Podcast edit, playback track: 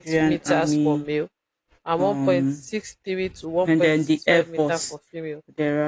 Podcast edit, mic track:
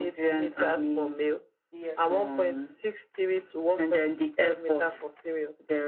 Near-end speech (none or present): present